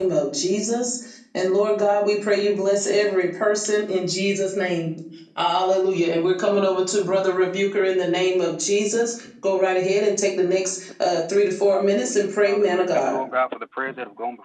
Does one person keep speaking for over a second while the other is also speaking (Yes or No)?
Yes